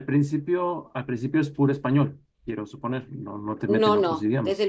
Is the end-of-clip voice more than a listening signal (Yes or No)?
Yes